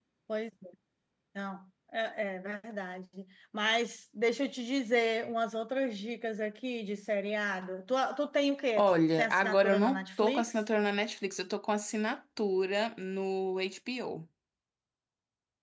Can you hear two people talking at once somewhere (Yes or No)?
Yes